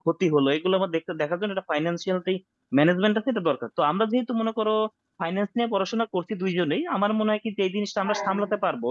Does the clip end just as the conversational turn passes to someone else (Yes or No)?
No